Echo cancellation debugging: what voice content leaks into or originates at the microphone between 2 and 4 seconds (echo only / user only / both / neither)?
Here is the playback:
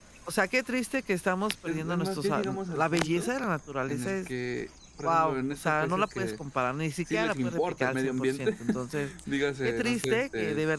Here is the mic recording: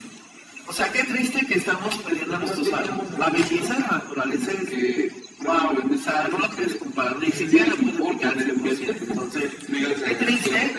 echo only